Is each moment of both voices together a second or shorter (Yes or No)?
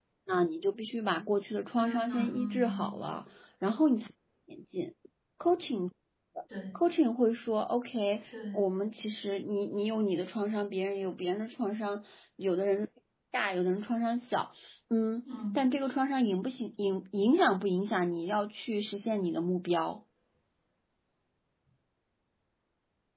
No